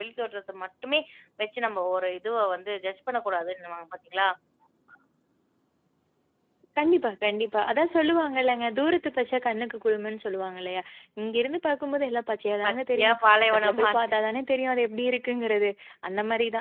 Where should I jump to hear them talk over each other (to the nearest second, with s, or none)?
13 s